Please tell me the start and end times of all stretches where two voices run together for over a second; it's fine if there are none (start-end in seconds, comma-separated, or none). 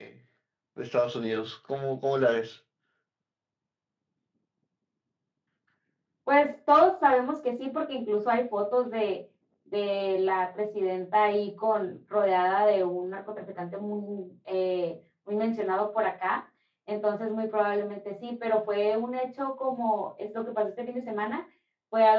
none